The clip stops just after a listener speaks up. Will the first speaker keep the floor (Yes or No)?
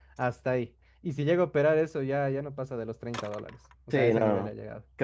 No